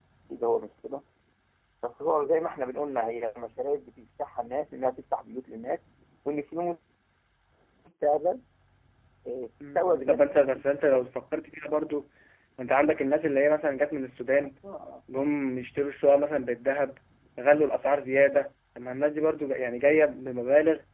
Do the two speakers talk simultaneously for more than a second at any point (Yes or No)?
Yes